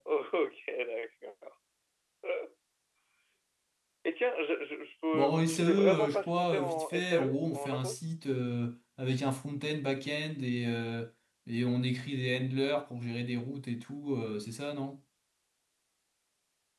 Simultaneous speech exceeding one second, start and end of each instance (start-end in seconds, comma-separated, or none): 5.1-8.0